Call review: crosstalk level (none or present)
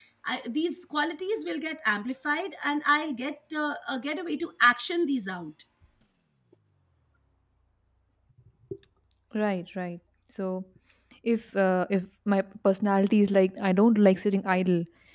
none